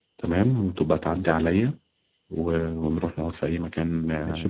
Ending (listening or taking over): taking over